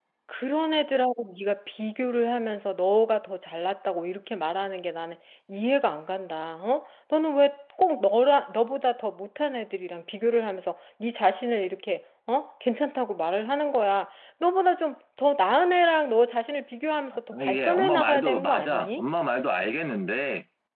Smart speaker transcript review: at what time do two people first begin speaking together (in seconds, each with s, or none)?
17.3 s